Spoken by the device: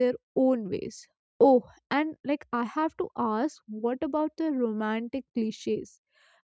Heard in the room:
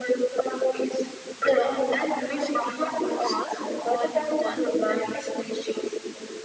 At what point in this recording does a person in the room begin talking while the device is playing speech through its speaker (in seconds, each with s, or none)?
1.4 s